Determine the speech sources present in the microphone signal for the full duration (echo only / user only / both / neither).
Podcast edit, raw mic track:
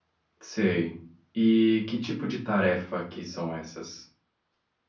user only